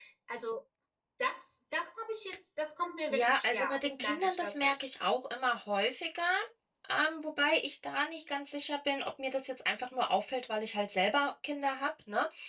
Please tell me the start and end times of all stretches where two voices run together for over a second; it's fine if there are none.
3.1-4.9

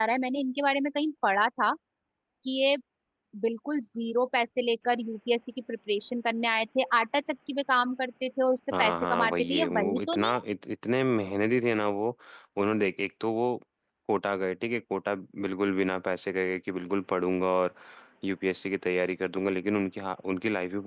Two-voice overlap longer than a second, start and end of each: 8.8-10.4

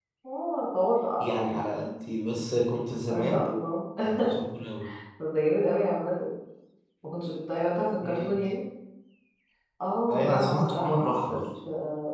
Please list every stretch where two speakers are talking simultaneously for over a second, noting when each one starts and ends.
10.1-11.4

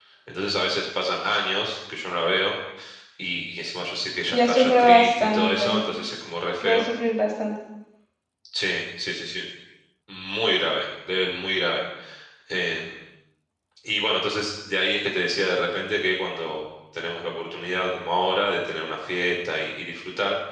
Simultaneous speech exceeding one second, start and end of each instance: 4.3-5.8

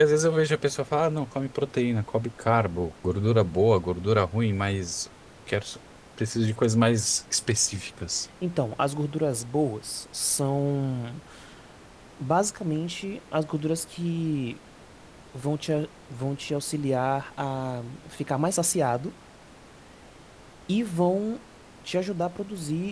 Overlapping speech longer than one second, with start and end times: none

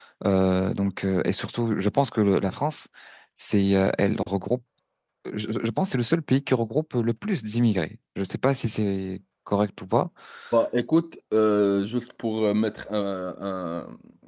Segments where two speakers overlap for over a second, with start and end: none

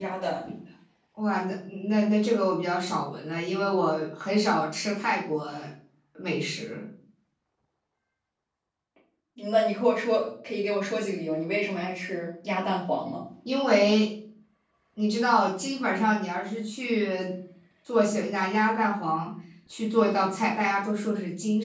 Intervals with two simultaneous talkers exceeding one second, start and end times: none

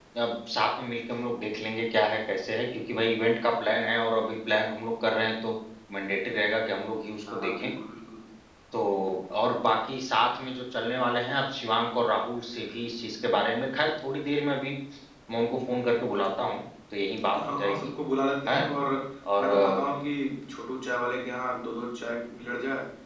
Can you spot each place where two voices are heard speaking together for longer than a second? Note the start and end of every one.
none

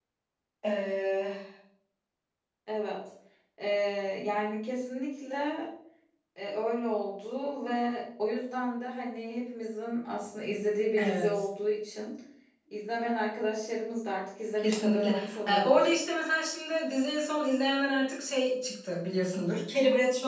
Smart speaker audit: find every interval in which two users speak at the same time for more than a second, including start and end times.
14.6-15.9

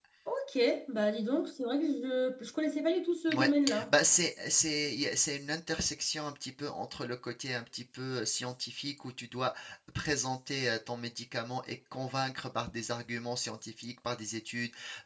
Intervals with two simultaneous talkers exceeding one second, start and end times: none

